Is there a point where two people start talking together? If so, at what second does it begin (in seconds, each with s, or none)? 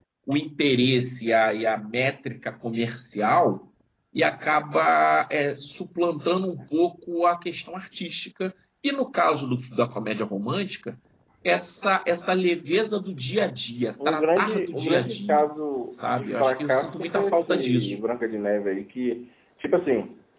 14.0 s